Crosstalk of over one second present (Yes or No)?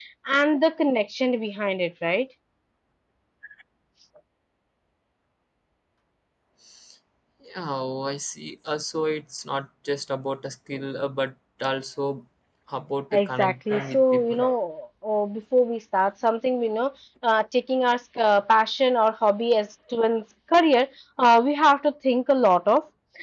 Yes